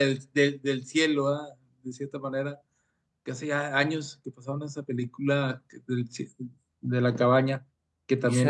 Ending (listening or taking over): taking over